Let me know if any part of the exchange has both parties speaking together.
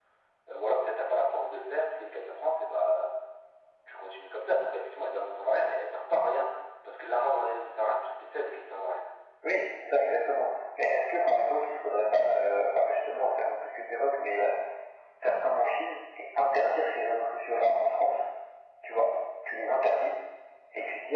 No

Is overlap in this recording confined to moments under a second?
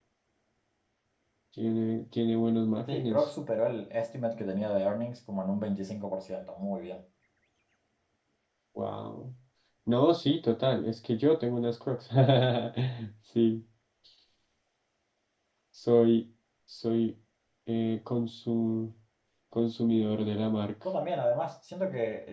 Yes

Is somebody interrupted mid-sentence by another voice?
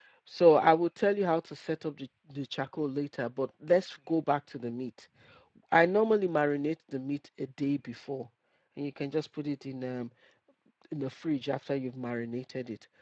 No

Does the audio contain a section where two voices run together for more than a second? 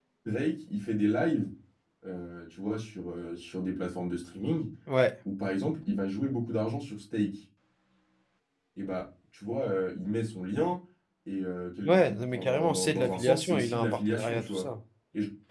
Yes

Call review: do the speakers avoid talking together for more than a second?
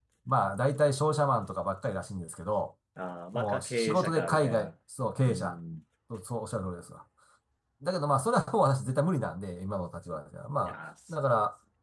No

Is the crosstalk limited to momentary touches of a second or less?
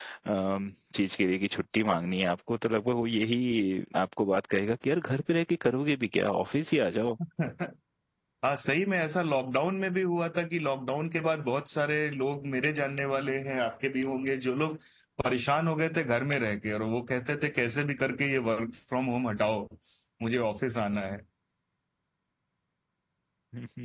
Yes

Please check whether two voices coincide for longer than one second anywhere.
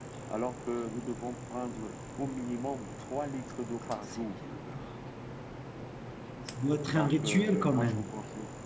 Yes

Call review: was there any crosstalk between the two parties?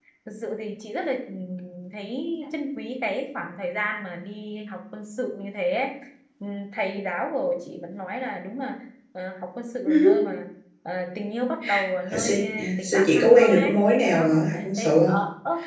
Yes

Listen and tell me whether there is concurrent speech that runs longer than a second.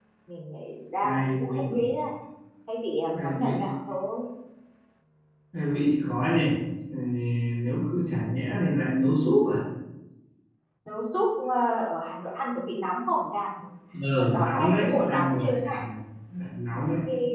Yes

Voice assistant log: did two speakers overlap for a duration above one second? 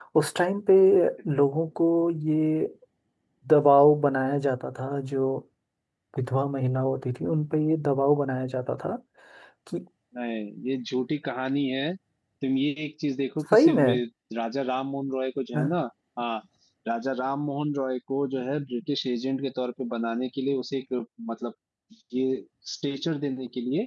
No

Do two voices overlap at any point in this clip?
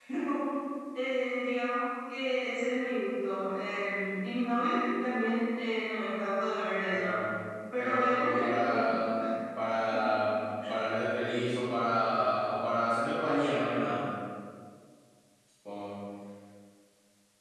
Yes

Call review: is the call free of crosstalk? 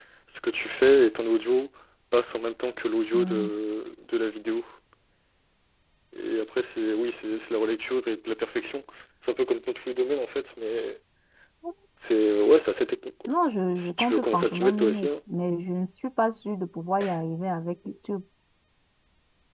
No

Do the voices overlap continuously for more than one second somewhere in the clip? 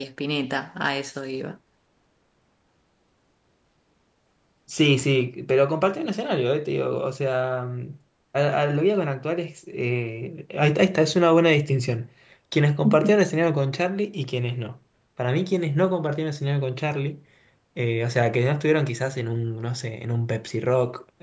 No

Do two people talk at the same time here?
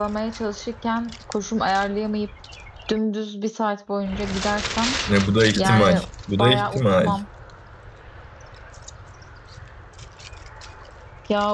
Yes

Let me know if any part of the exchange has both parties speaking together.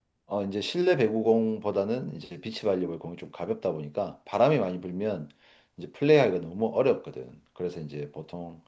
No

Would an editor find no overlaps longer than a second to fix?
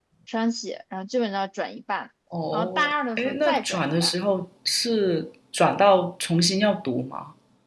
No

